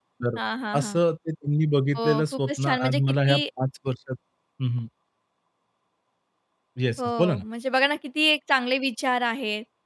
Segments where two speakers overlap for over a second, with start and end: 2.0-3.4

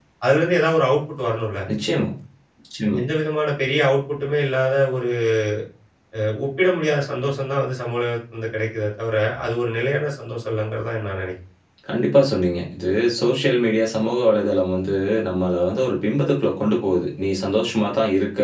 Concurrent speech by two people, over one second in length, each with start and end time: none

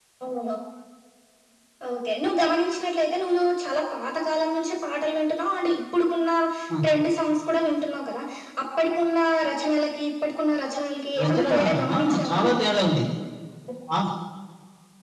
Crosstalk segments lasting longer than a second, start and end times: 11.2-12.6

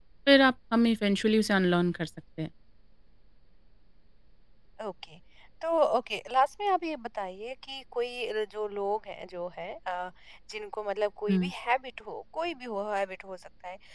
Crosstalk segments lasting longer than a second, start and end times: none

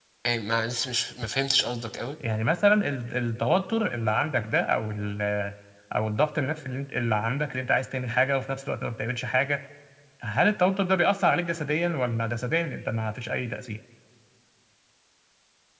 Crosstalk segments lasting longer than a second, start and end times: none

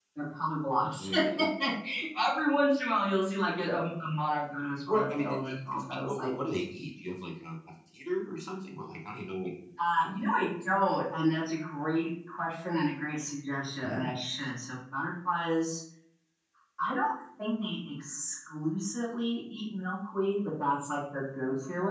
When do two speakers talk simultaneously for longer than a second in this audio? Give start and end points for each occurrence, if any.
4.9-6.3

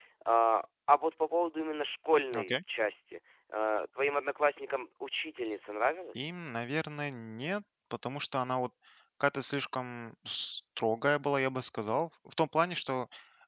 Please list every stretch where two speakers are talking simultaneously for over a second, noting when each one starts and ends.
none

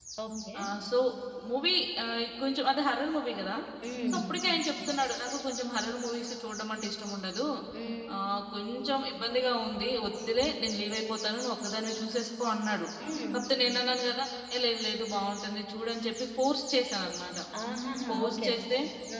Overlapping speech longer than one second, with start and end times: none

